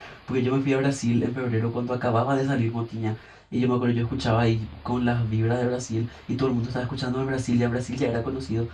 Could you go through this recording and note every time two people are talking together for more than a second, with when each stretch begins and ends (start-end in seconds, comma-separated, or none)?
none